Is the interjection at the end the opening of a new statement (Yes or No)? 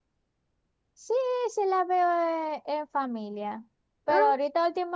No